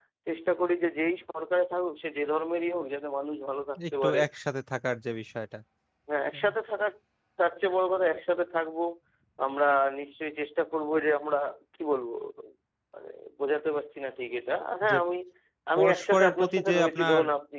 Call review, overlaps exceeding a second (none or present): present